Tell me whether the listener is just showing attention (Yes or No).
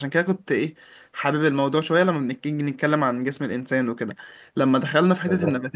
Yes